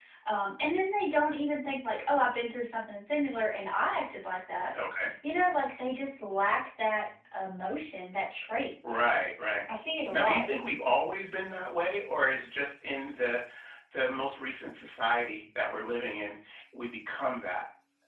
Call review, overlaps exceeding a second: none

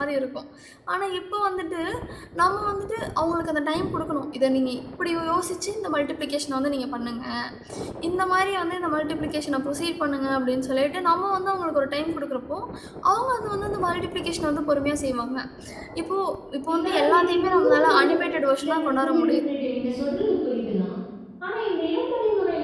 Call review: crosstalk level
present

